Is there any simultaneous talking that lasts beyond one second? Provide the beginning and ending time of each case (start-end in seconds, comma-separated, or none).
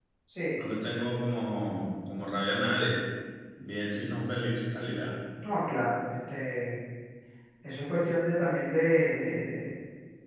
none